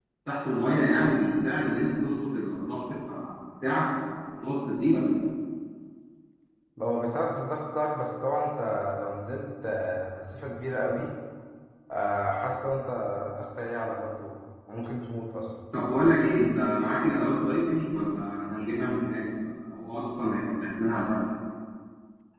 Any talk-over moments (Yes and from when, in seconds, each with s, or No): No